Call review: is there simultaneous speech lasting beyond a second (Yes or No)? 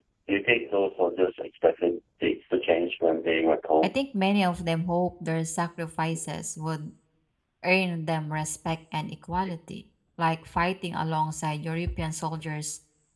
No